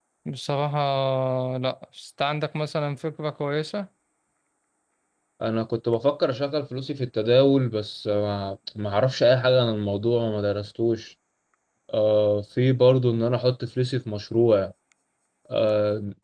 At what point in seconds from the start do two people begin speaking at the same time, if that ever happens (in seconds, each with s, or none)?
none